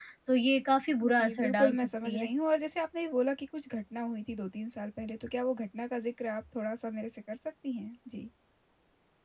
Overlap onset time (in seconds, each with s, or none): 1.0 s